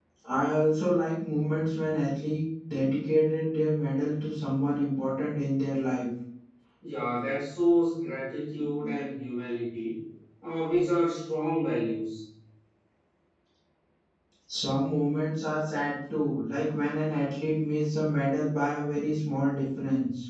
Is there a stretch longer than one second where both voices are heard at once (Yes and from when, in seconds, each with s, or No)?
No